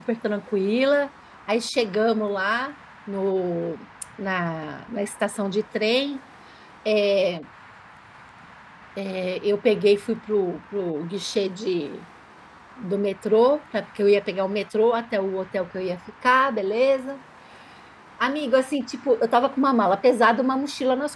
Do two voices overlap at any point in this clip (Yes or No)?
No